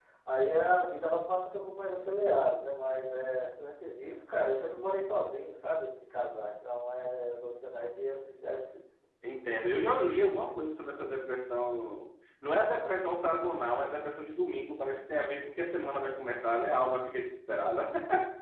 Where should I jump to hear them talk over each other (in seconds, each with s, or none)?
none